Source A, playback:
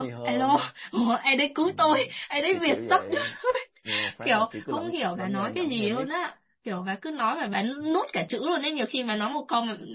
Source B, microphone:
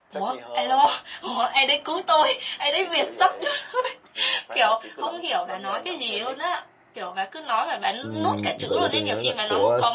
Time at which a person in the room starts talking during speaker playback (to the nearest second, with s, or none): 8 s